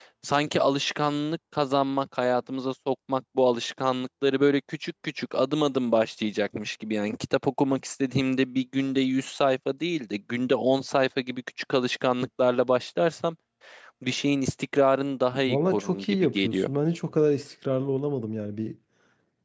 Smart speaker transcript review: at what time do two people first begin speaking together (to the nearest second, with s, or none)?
15 s